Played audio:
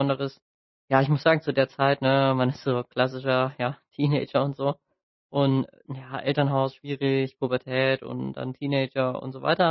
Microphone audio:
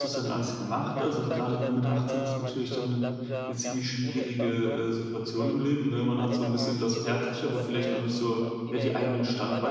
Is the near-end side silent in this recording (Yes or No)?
No